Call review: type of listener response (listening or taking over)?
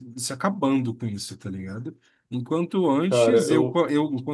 listening